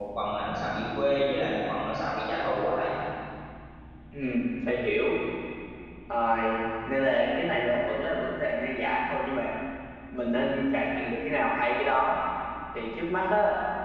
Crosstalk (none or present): none